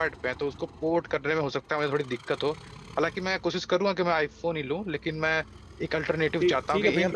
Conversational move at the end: taking over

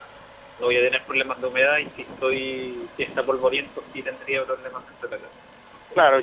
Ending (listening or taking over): taking over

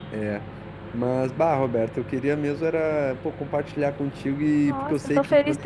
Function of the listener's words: taking over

